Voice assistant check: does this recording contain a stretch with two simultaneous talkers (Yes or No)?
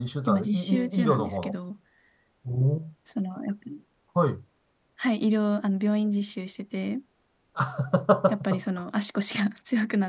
Yes